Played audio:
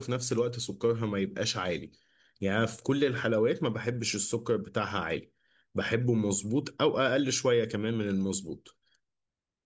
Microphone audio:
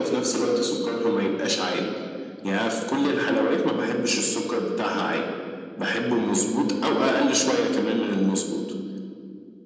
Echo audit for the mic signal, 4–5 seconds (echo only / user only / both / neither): echo only